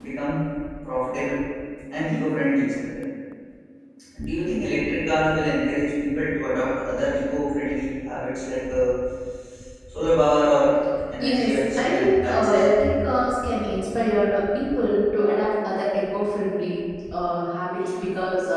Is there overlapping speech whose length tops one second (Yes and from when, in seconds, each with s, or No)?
Yes, from 11.2 s